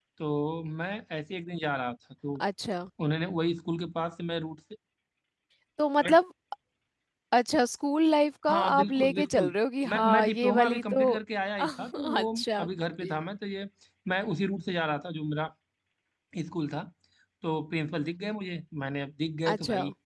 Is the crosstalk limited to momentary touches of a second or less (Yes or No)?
No